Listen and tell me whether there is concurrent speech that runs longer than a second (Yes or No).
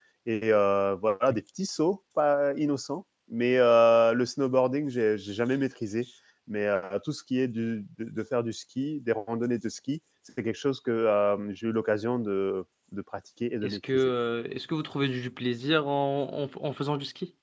No